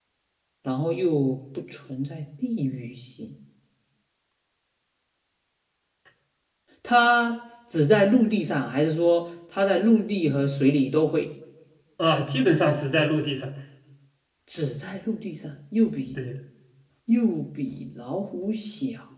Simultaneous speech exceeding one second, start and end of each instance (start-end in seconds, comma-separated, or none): none